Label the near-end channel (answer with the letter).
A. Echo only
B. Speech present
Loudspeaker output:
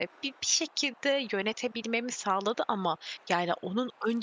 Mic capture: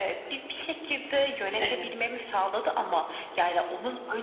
B